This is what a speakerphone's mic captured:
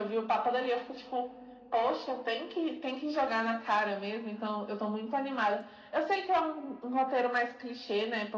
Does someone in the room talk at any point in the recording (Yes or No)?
No